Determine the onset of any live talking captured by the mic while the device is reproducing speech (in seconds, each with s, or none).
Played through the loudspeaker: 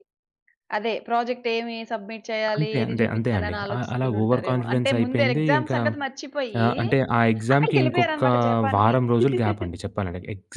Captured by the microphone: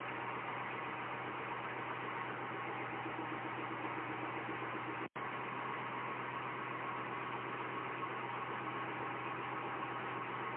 none